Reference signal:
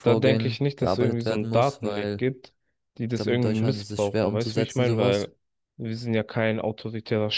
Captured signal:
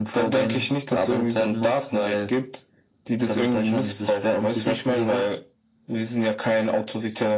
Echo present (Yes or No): Yes